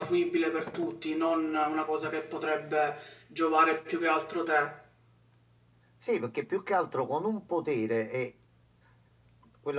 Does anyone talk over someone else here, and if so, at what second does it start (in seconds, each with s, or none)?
none